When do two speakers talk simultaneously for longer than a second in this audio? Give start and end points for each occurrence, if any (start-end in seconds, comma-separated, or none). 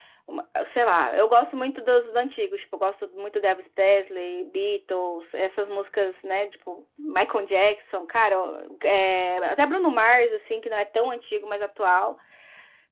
none